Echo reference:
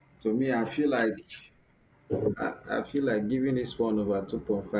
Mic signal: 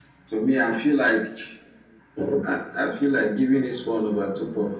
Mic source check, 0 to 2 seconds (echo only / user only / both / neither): echo only